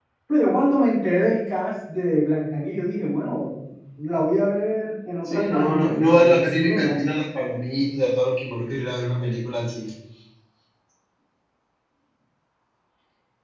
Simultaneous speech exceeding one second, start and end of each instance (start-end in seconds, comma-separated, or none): 5.2-7.0